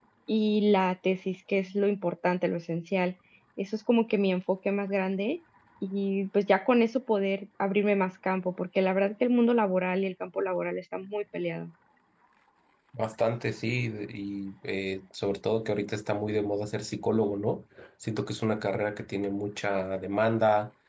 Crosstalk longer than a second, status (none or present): none